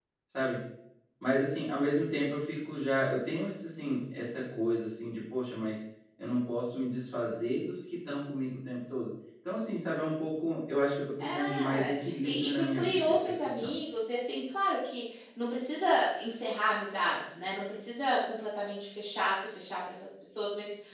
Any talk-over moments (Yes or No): Yes